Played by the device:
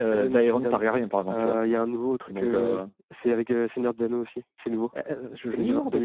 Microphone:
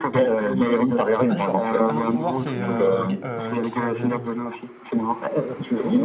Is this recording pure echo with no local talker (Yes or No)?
No